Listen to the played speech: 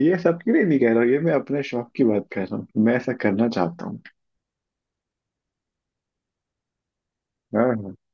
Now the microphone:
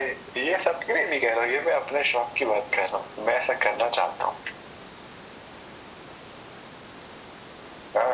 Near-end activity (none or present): none